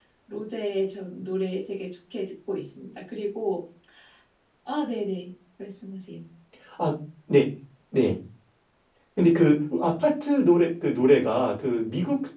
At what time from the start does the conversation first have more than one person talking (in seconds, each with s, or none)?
none